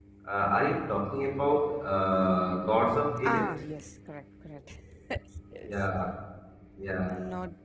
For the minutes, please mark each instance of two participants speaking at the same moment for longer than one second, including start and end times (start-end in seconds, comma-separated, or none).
none